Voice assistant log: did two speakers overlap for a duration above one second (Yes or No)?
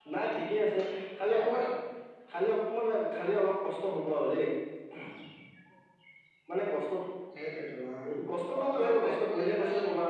Yes